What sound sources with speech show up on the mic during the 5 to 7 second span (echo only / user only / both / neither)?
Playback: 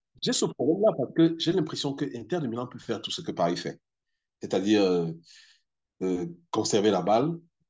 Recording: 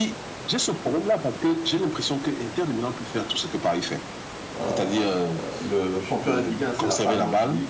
both